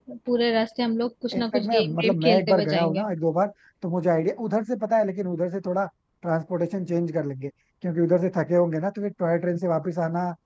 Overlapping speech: Yes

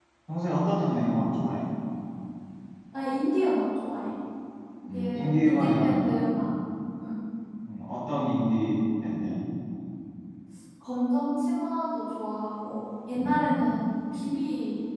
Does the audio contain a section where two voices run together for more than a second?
Yes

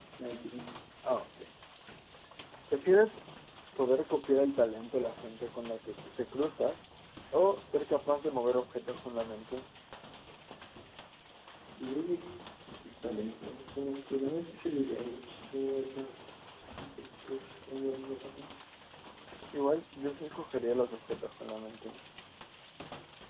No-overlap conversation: Yes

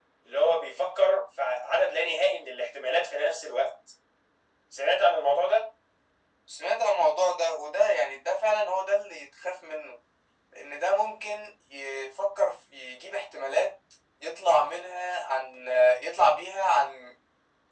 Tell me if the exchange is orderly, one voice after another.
Yes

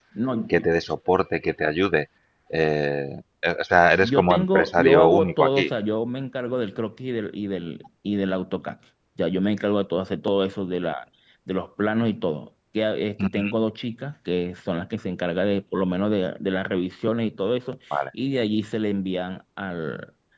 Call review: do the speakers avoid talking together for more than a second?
No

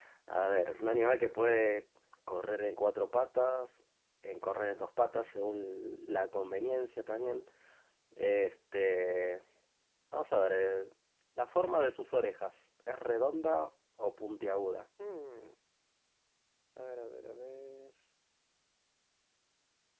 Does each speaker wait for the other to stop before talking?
Yes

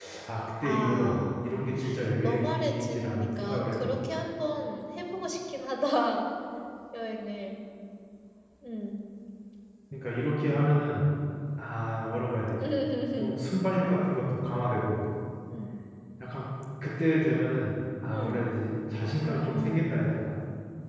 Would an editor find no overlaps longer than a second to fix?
No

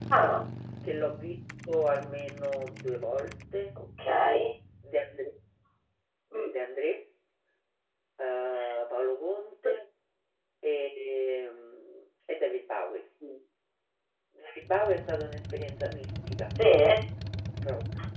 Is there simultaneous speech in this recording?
No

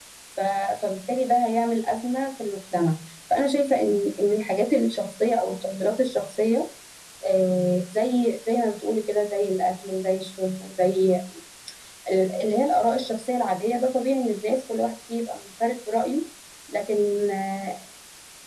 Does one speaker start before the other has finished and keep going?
No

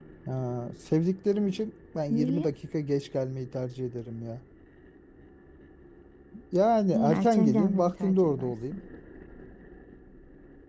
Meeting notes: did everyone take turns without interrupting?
No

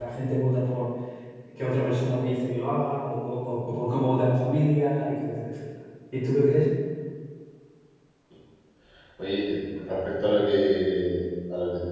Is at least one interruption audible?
No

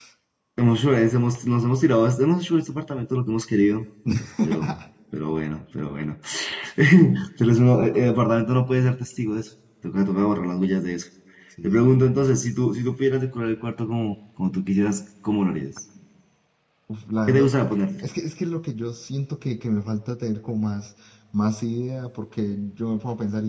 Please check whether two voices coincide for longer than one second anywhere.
No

